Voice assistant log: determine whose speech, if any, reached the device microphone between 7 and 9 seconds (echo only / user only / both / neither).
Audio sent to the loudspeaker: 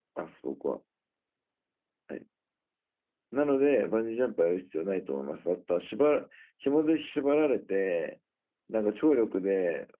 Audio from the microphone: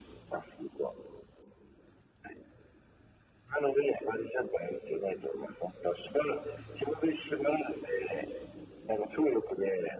echo only